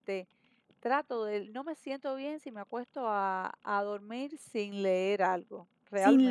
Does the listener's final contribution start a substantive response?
Yes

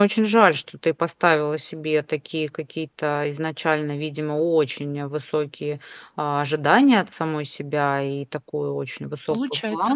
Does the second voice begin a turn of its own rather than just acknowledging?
No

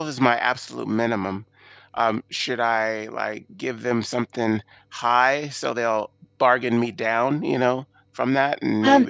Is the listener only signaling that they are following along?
No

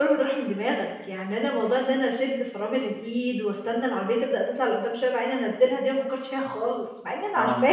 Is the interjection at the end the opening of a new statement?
Yes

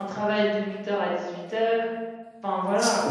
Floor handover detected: Yes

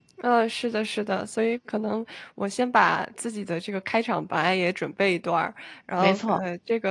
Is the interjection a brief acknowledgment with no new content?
Yes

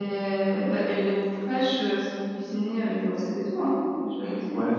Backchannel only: No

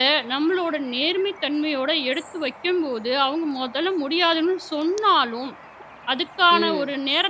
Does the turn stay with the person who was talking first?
Yes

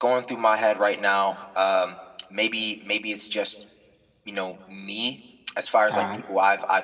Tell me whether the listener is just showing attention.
Yes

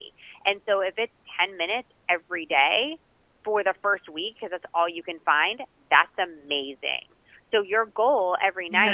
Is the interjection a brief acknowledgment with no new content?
Yes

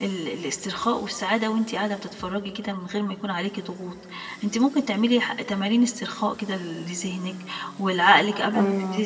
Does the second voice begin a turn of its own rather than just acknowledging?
No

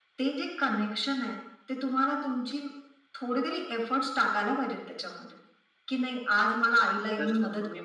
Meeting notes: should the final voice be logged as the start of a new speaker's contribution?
Yes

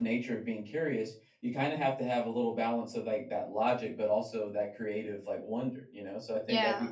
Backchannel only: Yes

